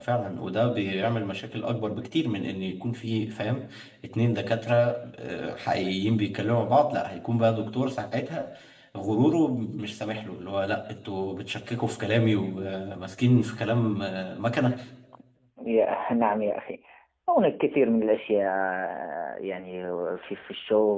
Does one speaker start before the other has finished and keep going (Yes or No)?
No